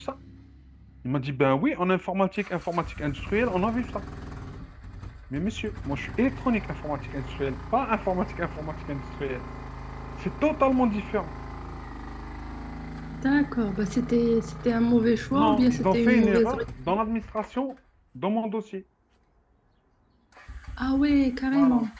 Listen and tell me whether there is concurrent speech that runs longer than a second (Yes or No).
Yes